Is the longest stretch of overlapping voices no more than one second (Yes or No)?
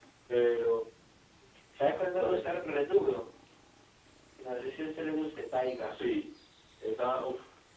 Yes